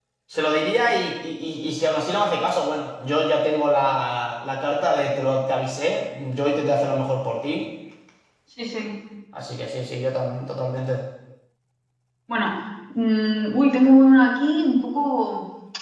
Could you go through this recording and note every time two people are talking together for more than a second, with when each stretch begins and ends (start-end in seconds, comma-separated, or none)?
none